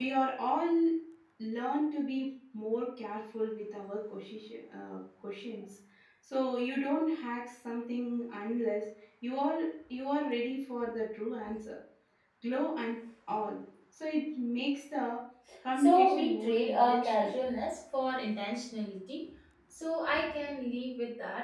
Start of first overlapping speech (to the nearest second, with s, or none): 16 s